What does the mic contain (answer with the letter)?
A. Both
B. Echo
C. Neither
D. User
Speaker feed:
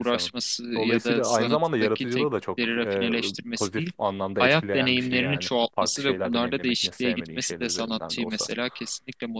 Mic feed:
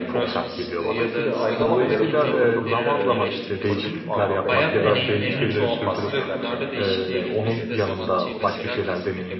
A